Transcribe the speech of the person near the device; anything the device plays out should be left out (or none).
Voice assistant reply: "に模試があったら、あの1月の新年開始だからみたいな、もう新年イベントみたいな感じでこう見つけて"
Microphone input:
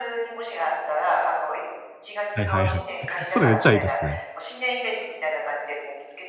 はいはいはい。それめっちゃええですね。